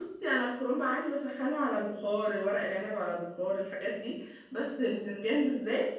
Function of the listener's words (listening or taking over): listening